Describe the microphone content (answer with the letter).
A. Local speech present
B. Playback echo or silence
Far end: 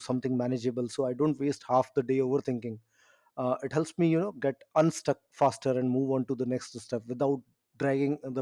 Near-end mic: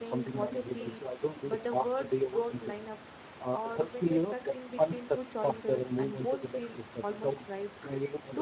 A